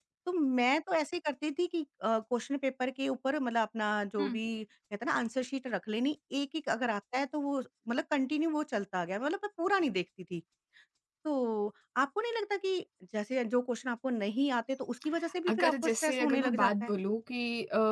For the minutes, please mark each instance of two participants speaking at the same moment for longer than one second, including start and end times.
15.5-16.9

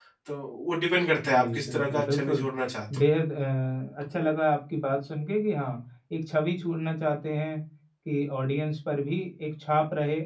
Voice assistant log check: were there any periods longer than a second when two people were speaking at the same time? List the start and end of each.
1.3-2.5

